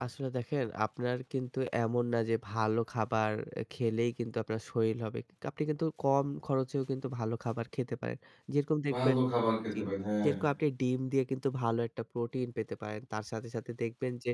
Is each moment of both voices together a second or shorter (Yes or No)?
Yes